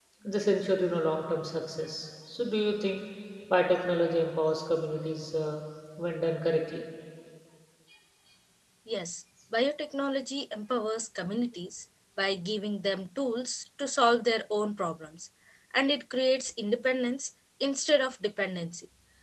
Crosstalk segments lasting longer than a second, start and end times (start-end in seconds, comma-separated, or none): none